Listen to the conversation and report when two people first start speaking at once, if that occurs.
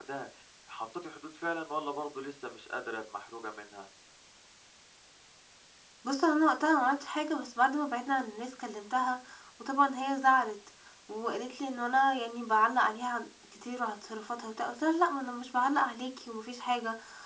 none

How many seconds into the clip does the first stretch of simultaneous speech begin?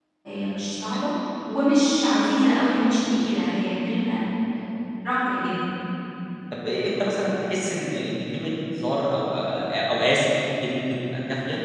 none

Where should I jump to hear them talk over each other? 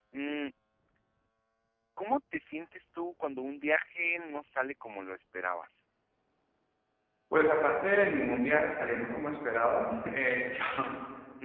none

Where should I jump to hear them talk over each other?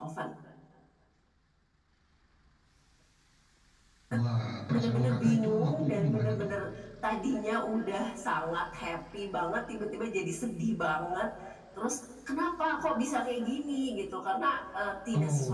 4.7 s

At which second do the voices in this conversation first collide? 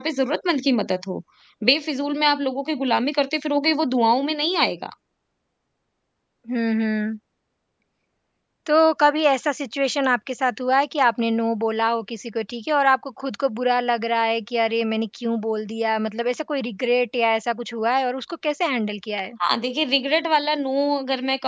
none

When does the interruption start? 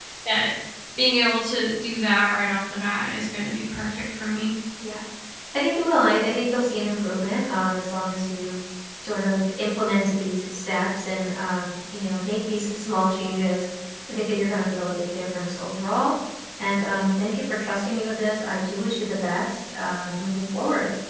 none

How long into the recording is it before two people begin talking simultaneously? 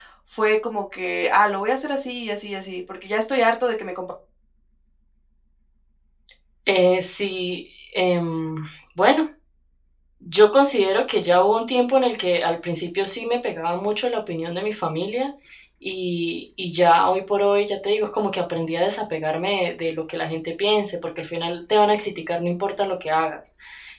none

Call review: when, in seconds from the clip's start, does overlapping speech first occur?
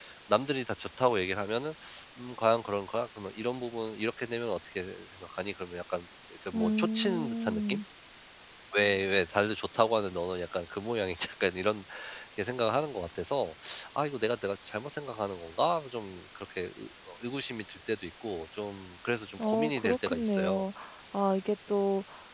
6.5 s

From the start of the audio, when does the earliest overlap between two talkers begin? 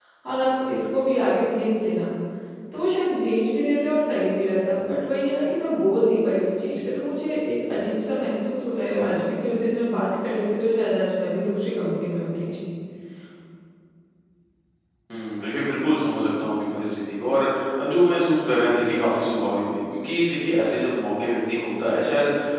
none

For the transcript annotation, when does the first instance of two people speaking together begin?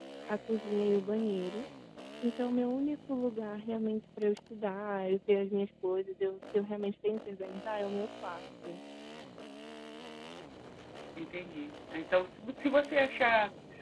none

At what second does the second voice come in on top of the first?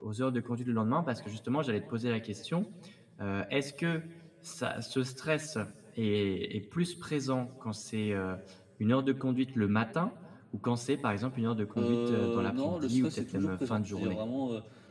11.8 s

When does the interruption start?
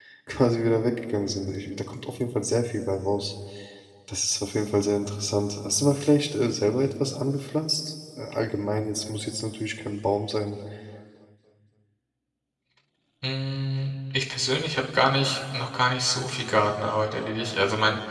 none

